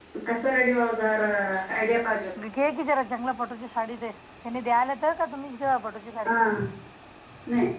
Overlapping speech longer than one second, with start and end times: none

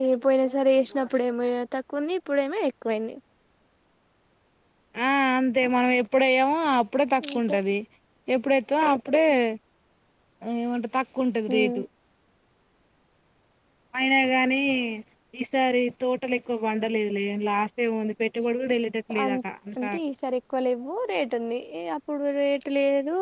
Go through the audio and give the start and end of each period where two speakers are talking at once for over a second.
none

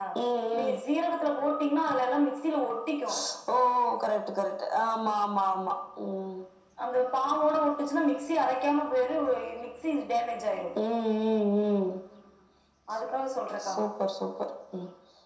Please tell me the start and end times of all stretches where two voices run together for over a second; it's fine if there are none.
none

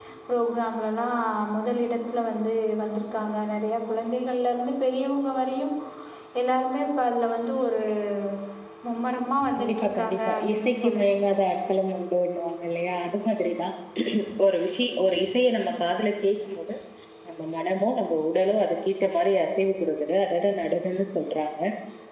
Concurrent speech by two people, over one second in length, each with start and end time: 9.6-11.3

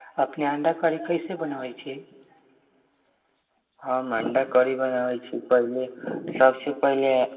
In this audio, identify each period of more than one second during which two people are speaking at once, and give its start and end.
none

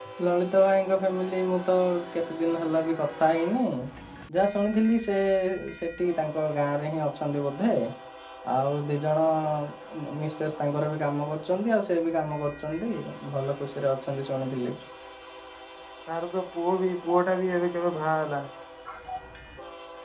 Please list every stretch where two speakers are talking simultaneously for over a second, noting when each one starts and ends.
none

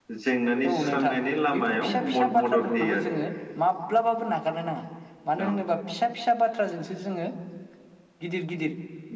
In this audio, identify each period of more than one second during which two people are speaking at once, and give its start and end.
1.5-3.1

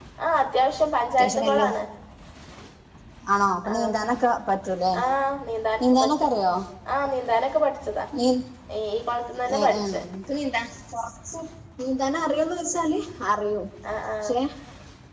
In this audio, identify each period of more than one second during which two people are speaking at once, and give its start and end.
none

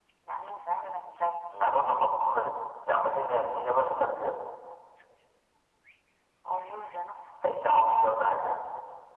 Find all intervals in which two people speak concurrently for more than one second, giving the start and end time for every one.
none

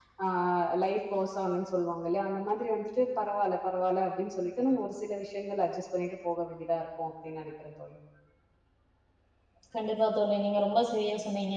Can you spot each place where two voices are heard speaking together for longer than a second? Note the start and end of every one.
none

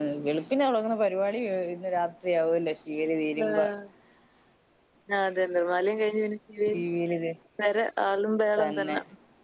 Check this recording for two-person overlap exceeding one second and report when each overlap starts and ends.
none

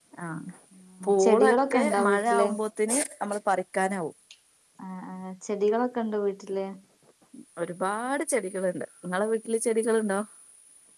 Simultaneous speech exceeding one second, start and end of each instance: 1.2-2.5

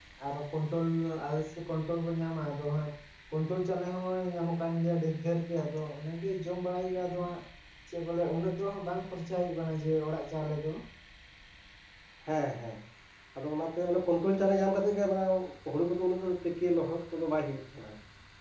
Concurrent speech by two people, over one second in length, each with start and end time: none

